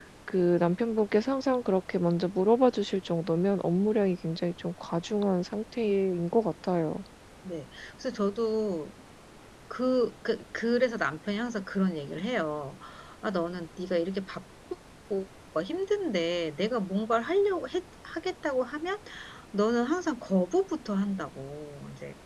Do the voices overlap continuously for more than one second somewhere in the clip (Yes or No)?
No